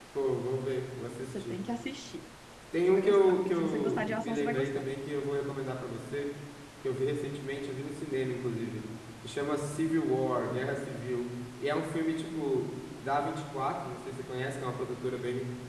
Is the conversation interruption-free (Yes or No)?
No